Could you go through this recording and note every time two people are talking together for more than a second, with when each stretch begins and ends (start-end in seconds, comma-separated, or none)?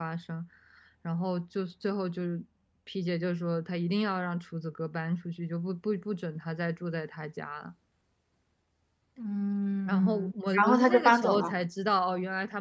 9.9-11.6